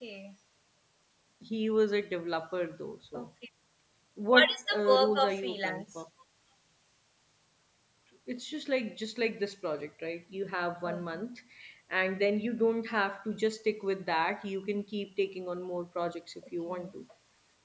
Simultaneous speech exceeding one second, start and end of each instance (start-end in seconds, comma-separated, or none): 4.3-5.8